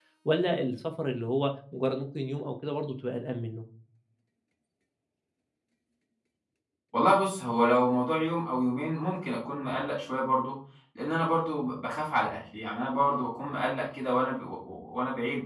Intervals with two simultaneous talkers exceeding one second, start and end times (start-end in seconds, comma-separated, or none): none